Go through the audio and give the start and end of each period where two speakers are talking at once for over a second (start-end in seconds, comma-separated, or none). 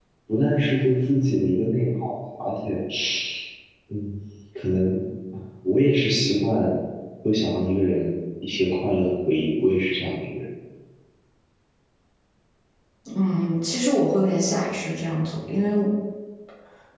none